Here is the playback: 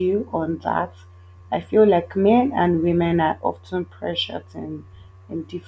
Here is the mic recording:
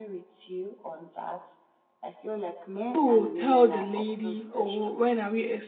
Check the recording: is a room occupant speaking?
Yes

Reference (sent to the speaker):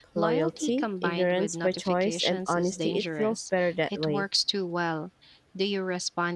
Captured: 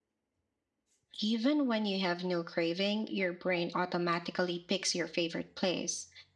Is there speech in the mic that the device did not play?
Yes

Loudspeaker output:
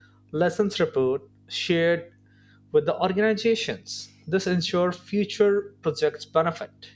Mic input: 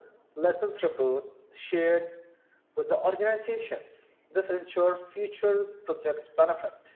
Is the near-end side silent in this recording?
Yes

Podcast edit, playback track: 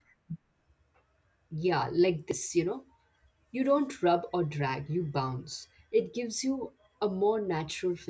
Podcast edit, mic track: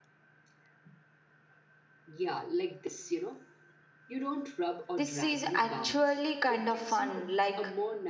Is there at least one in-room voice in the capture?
Yes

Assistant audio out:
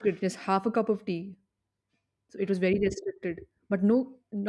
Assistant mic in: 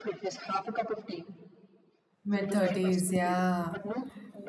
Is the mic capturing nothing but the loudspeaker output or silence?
No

